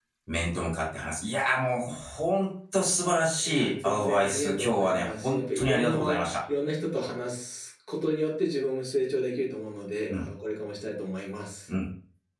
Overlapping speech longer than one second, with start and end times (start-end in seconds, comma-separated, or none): 3.5-6.2